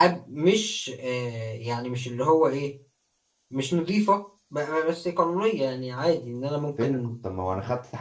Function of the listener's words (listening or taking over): taking over